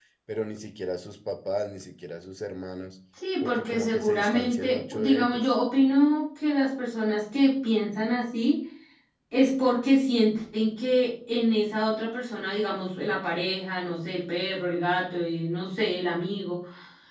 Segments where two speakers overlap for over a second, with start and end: 3.4-5.5

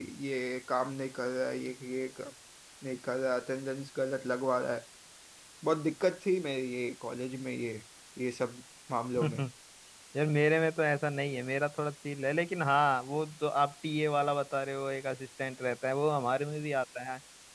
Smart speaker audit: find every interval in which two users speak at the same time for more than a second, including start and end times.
none

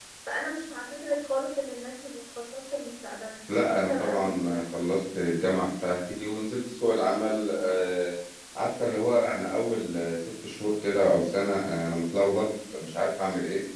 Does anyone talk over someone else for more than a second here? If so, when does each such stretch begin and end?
3.7-5.0

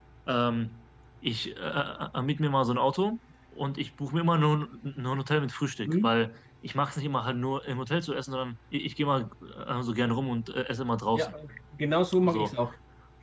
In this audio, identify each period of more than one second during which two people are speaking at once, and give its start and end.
none

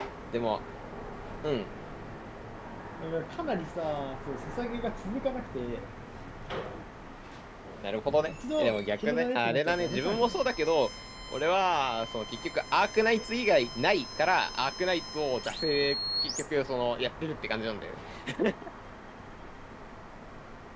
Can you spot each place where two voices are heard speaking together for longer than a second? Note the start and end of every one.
8.3-10.5

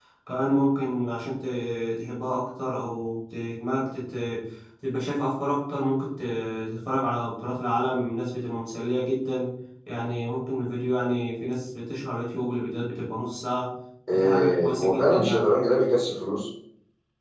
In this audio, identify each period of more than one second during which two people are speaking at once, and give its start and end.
14.1-15.5

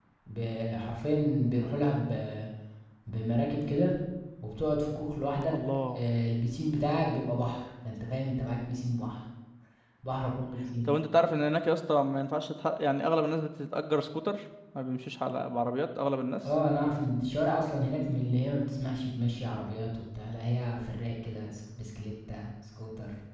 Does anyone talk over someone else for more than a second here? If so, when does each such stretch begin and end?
none

